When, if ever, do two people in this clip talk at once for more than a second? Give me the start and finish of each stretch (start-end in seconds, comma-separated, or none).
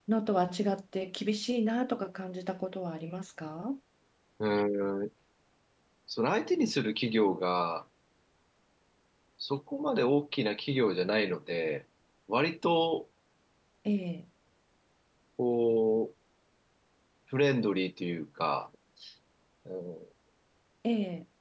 none